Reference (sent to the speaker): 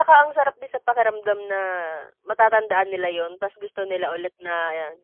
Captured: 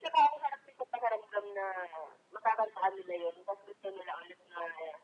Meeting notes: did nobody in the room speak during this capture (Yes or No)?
Yes